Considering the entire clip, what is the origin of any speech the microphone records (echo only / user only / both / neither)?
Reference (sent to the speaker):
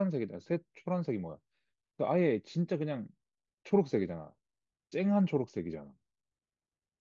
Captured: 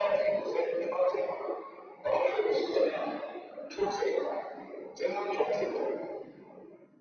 echo only